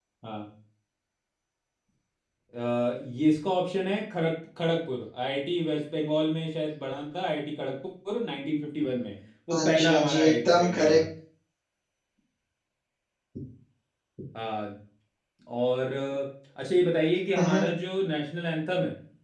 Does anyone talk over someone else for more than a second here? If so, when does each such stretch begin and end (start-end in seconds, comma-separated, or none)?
9.5-11.0